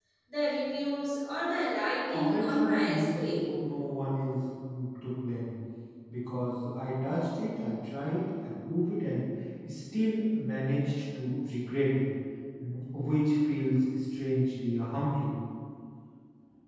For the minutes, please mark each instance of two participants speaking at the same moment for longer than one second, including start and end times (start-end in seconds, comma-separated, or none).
2.1-3.5